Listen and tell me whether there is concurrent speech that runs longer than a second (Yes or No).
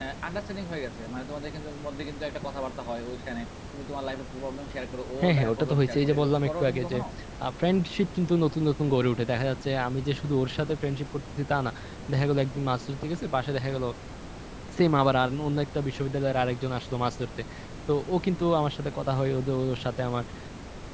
Yes